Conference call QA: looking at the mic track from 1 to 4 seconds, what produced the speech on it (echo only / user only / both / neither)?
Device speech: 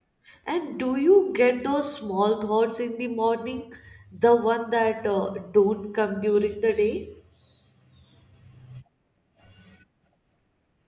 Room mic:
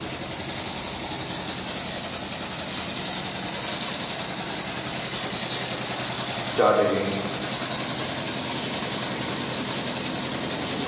neither